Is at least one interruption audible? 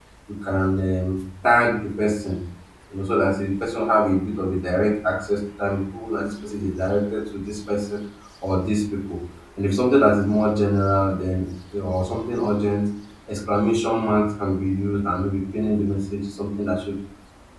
No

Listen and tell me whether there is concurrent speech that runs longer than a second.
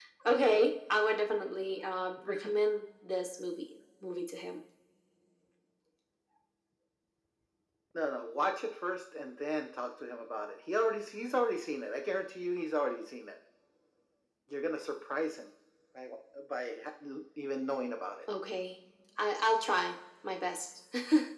No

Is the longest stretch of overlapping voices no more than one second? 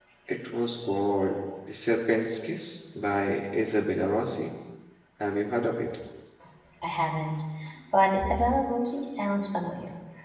Yes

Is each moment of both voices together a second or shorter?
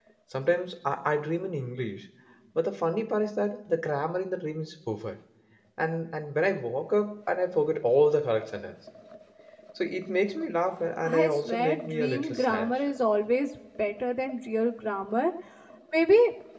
No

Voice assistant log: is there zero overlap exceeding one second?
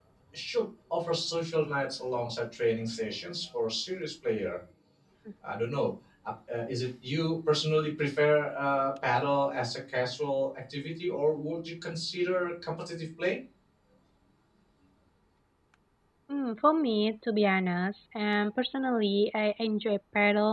Yes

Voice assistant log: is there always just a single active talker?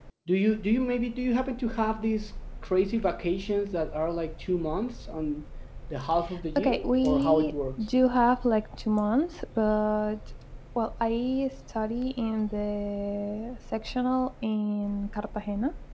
No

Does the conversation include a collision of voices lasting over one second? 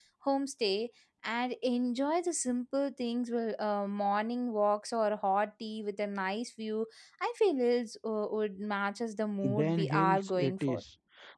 Yes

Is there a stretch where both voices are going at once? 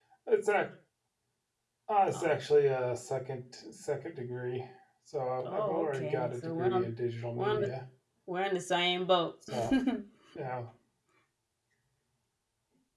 Yes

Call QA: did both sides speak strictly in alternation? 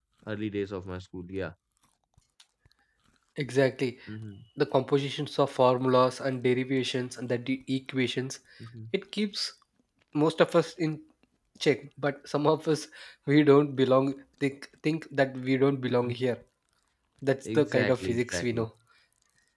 No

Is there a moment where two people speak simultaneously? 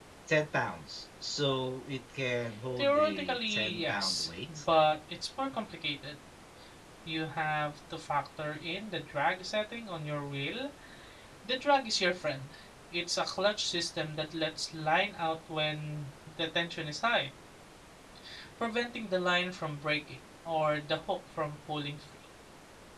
Yes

